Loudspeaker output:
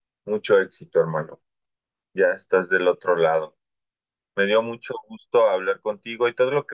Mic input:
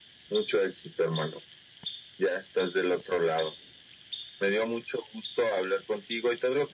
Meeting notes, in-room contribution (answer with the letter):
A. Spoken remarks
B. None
B